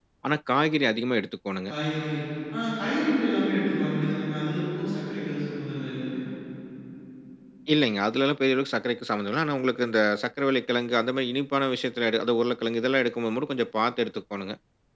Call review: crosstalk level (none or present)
none